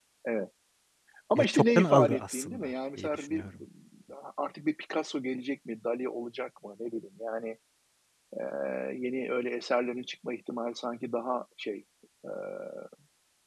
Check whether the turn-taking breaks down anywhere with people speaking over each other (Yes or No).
Yes